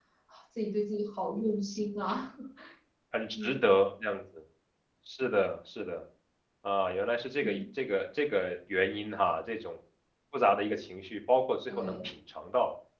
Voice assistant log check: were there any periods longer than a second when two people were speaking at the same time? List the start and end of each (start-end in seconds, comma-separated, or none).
none